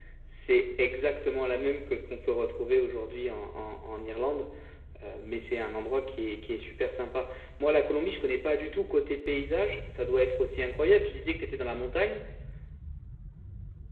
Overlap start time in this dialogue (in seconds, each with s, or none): none